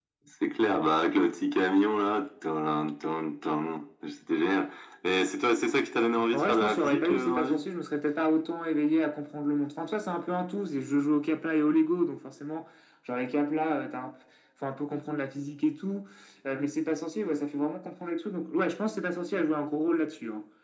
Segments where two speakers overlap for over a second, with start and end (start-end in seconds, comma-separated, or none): 6.3-7.6